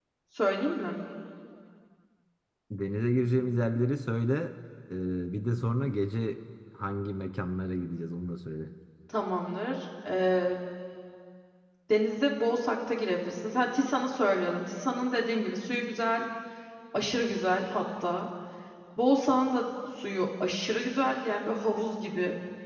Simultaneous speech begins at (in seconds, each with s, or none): none